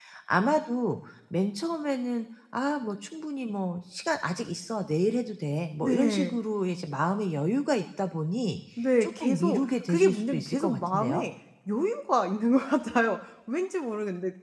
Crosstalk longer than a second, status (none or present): present